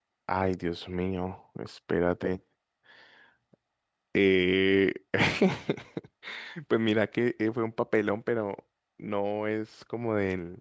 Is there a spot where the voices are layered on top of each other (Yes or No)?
No